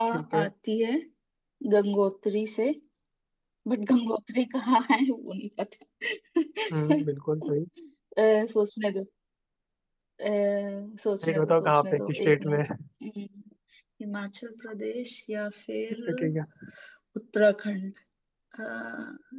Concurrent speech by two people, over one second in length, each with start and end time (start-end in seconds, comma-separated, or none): 11.3-12.6